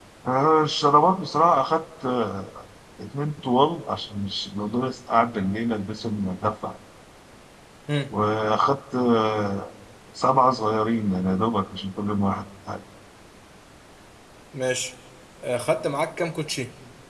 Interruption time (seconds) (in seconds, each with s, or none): none